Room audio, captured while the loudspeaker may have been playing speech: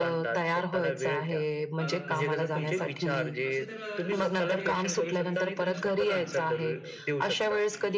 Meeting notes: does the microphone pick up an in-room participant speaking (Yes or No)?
Yes